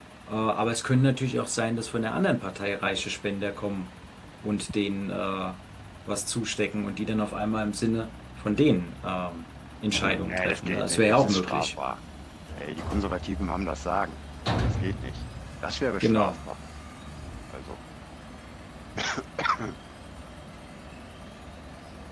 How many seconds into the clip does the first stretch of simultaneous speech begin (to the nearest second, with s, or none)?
10 s